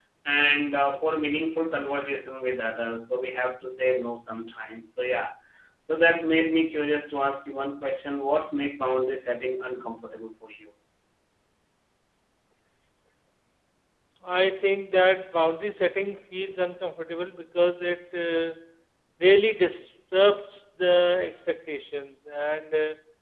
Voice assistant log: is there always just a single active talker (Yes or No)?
Yes